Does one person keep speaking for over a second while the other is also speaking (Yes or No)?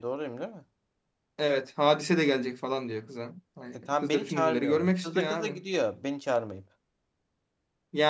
Yes